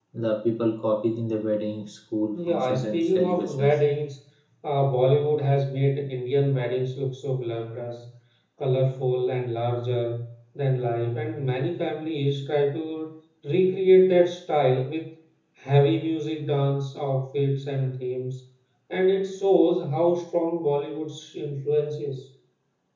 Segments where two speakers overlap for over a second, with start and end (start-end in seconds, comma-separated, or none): 2.5-3.8